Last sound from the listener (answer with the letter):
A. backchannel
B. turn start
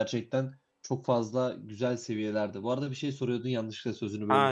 B